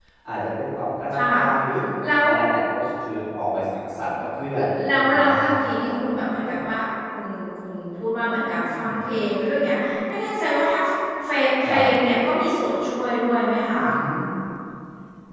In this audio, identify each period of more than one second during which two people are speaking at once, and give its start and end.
4.5-5.9

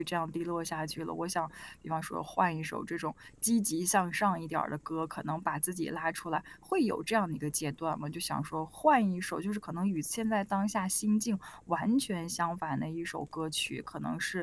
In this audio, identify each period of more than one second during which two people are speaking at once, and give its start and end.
none

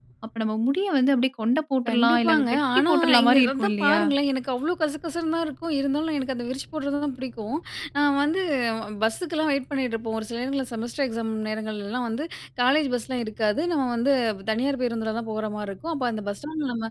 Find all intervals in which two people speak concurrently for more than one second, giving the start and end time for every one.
1.9-4.0

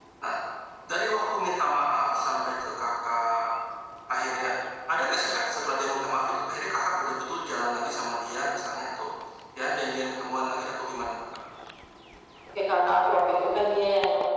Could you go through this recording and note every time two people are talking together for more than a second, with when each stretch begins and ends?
none

